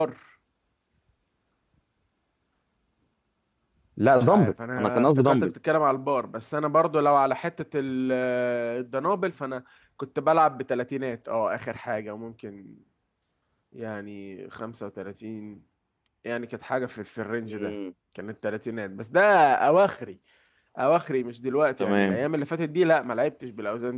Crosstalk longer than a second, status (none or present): present